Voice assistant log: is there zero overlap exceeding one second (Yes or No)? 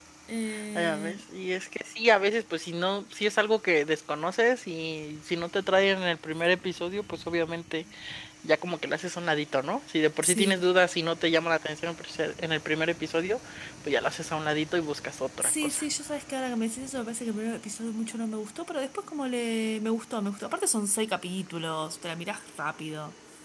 Yes